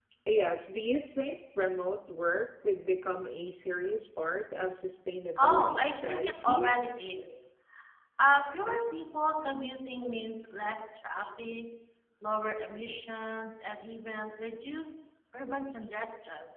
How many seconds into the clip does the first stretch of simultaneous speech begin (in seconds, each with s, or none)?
5.4 s